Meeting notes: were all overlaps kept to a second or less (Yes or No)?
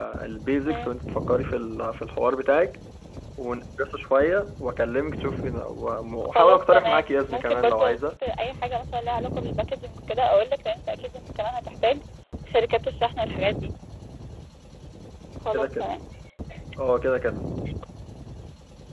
No